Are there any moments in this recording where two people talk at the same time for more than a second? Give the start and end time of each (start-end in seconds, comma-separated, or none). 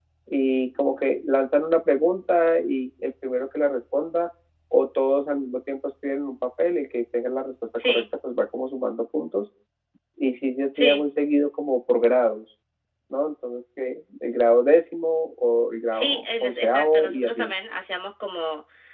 15.9-17.5